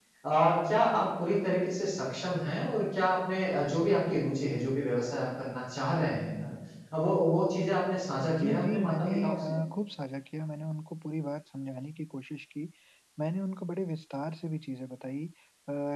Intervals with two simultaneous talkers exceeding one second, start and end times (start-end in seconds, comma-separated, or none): 8.3-9.5